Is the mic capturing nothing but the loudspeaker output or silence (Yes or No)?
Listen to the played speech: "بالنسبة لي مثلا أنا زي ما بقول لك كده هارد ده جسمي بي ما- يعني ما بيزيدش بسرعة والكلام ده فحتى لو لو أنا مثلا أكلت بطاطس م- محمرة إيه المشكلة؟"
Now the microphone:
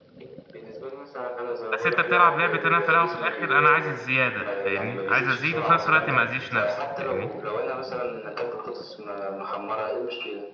No